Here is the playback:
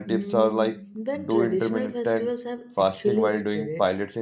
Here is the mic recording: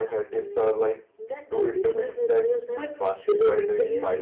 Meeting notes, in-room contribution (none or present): present